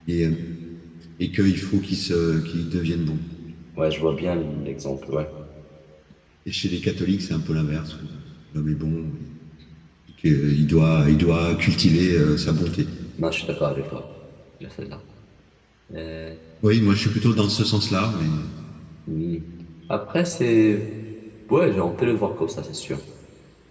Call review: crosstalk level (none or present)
none